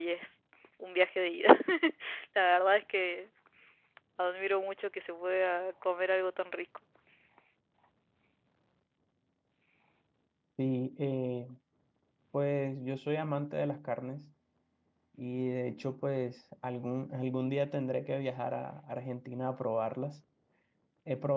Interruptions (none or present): none